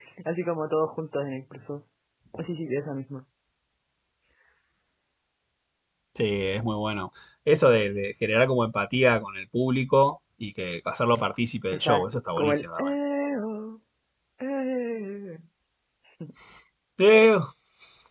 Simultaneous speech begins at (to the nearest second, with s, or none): 12 s